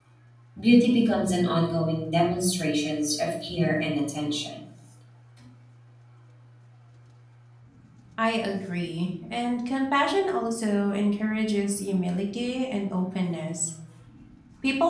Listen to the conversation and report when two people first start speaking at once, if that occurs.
none

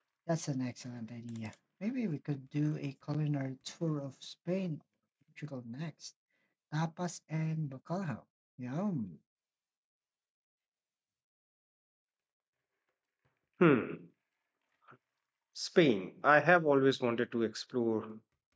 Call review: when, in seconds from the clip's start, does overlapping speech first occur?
none

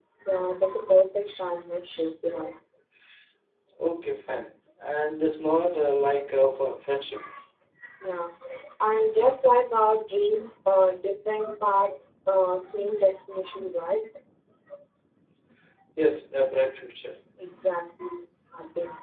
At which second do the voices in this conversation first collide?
none

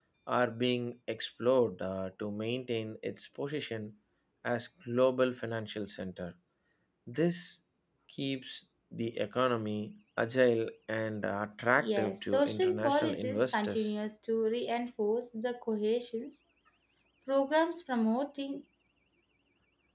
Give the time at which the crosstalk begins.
11.8 s

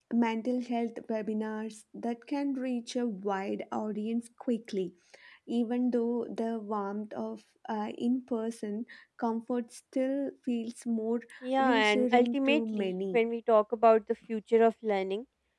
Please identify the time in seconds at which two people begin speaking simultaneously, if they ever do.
11.6 s

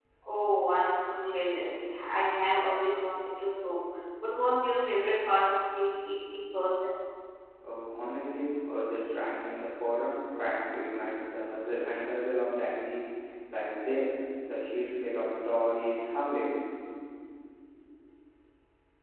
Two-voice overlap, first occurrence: none

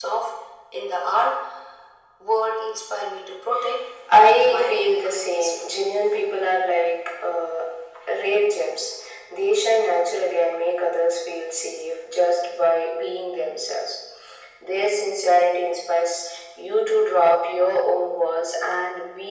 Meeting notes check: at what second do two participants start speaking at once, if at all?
4.4 s

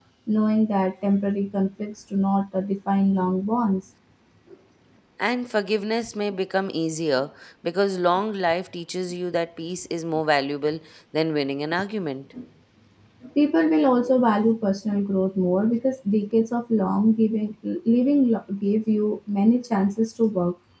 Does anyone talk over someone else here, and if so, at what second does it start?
none

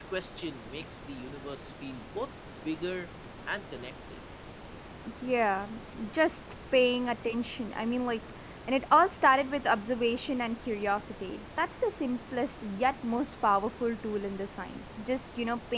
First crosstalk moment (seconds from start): none

